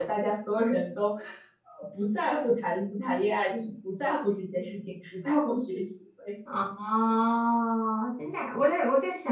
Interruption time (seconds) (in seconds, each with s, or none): none